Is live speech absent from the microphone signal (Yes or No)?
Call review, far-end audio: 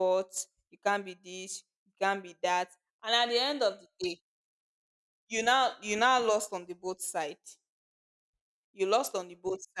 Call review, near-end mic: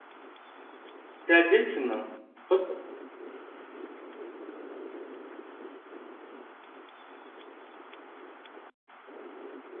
No